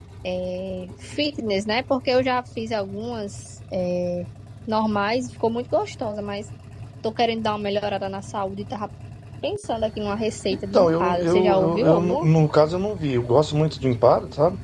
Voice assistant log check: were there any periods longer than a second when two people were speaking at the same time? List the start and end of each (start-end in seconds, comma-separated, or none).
10.7-12.3